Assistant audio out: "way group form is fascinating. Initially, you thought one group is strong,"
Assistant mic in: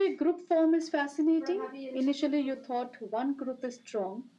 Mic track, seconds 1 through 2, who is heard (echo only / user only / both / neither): echo only